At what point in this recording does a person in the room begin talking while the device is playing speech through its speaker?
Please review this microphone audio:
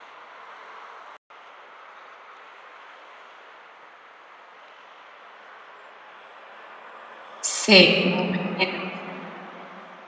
7.4 s

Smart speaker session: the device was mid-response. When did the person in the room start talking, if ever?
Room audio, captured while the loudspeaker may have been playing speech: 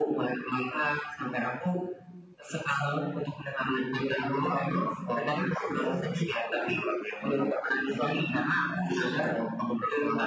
none

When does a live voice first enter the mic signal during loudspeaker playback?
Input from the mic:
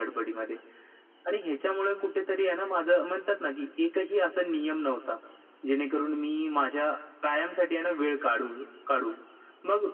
none

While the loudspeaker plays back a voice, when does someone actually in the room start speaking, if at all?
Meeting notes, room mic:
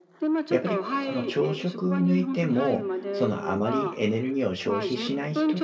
0.5 s

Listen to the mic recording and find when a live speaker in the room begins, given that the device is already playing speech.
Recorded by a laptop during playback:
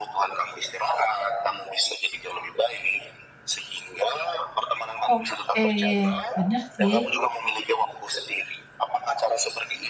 5.1 s

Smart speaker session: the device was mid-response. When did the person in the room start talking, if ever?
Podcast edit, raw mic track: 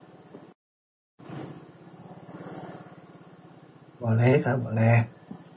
4.0 s

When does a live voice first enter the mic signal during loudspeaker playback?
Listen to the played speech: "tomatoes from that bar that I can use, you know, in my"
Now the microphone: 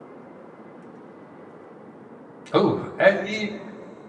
2.5 s

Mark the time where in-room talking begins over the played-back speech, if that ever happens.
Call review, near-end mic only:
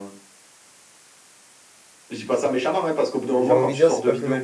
3.4 s

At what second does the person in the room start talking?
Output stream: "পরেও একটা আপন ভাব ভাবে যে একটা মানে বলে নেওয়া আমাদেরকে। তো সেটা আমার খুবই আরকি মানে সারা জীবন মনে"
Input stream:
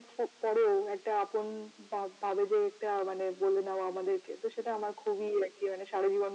none

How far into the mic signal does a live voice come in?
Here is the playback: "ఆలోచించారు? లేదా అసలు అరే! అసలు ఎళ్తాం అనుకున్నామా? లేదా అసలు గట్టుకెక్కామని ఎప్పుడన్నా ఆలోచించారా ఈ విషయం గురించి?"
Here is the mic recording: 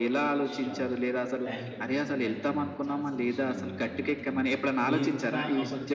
0.5 s

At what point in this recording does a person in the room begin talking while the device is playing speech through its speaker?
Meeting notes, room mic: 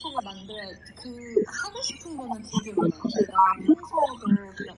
none

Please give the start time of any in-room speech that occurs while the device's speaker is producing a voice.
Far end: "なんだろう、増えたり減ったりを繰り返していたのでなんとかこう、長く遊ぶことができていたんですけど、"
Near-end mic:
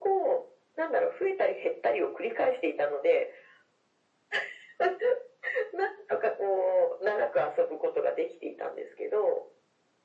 none

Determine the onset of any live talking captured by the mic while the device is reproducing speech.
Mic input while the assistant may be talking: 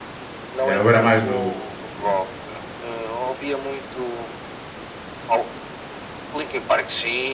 0.6 s

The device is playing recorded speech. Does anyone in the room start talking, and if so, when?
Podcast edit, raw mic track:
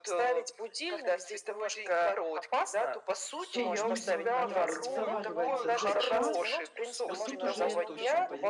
3.4 s

